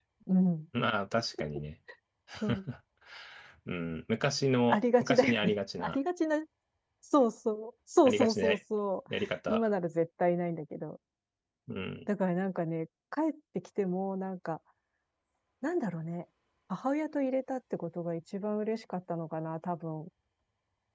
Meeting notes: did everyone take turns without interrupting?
No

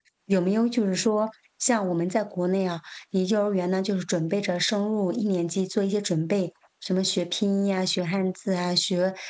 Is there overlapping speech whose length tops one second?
No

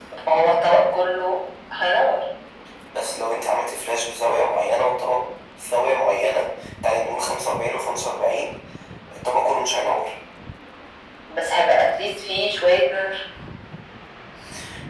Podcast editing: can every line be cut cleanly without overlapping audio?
Yes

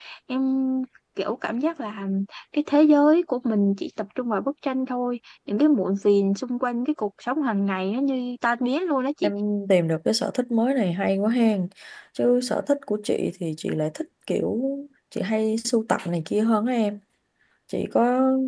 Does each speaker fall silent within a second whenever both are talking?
Yes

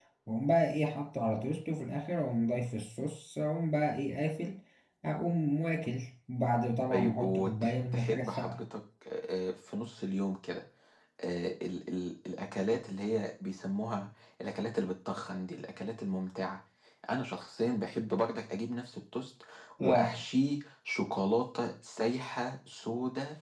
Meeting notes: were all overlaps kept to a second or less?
No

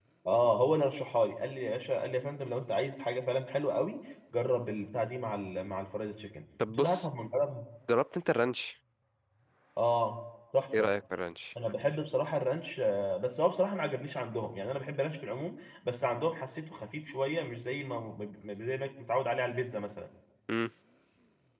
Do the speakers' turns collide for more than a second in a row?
No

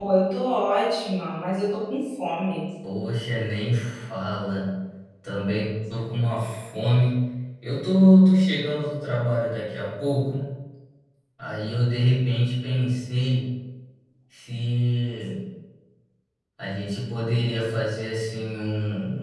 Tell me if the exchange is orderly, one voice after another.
Yes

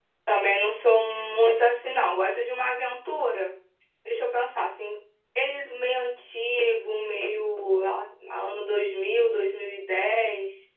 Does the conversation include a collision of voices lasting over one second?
No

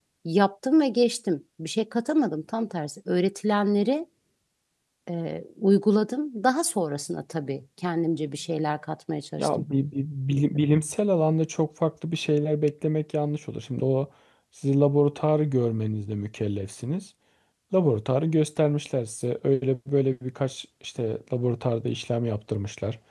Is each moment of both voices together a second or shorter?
Yes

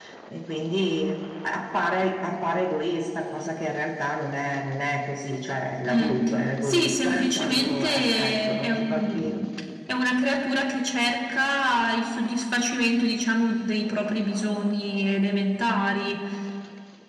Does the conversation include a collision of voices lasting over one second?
Yes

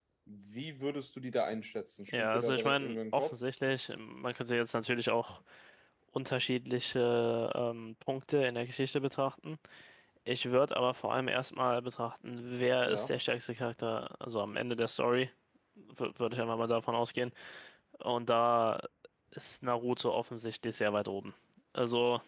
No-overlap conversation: No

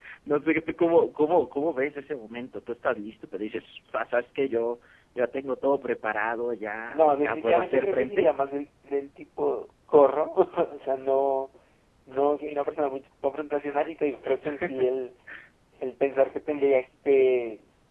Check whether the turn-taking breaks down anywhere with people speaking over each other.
Yes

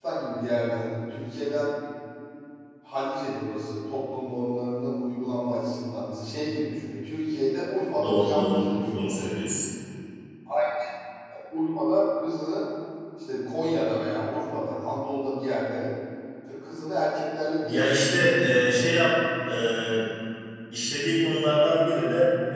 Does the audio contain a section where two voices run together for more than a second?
Yes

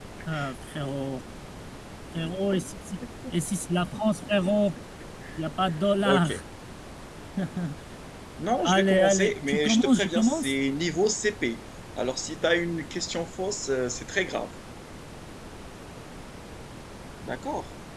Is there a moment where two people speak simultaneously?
Yes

